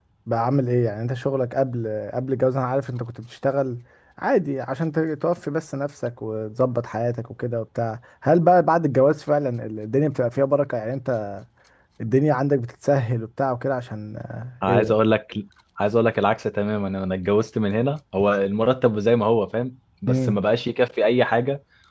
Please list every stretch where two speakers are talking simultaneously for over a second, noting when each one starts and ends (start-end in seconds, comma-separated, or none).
none